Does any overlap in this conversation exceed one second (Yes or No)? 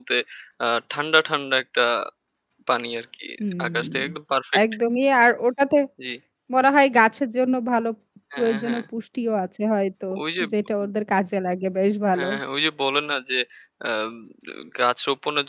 No